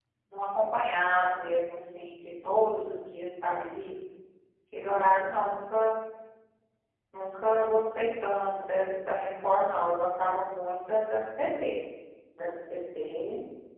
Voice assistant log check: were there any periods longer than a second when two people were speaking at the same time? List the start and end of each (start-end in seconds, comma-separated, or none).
none